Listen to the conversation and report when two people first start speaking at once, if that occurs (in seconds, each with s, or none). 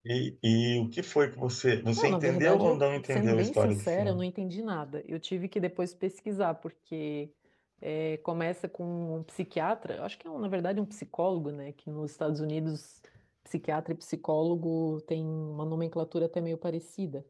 2.0 s